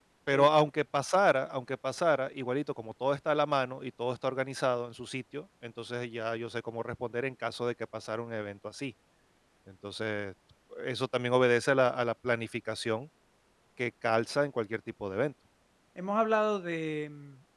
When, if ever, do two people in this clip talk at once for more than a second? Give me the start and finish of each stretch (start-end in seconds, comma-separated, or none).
none